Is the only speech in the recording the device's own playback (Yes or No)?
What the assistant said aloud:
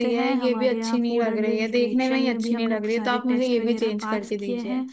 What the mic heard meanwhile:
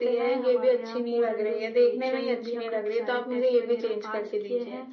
Yes